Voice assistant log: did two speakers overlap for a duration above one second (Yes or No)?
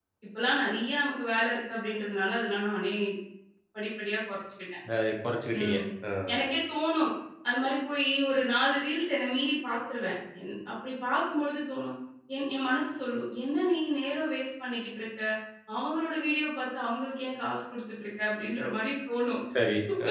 No